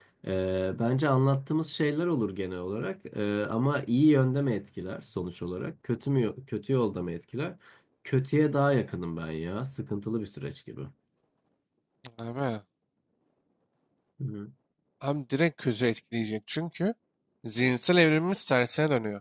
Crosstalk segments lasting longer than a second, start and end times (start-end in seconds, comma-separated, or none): none